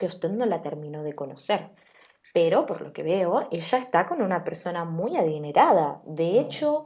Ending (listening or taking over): listening